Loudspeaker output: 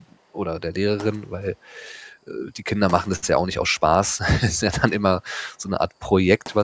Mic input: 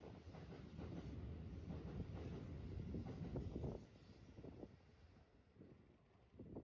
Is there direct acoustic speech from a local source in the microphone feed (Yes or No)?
No